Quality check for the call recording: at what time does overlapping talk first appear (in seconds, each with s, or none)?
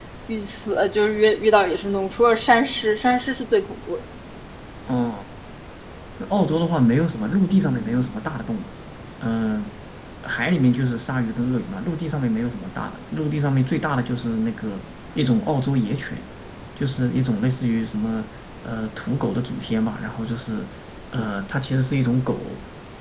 none